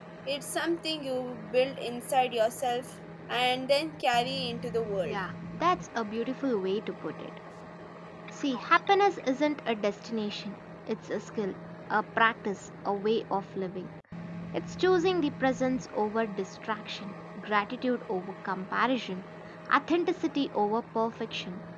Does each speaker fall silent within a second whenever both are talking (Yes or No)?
Yes